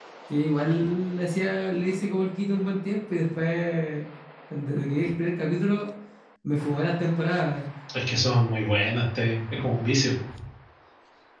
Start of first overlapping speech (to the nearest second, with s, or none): none